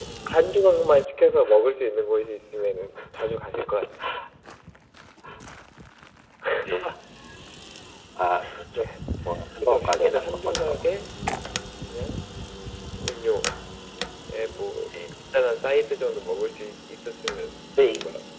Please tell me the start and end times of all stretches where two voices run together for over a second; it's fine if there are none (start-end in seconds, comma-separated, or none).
9.6-10.8